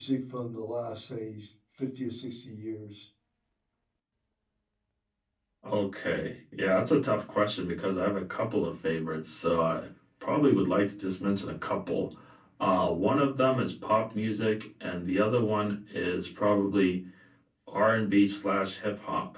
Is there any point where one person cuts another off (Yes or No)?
No